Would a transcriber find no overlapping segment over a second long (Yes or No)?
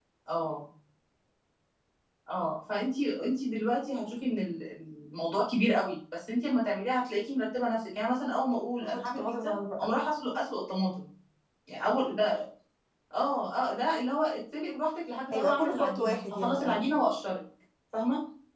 No